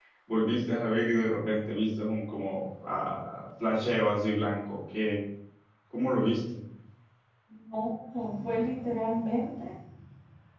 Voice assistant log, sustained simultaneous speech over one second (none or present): none